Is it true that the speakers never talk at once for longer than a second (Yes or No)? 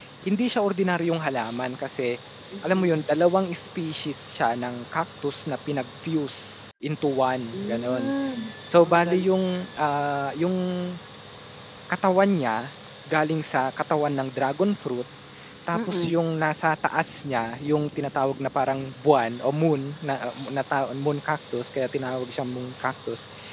Yes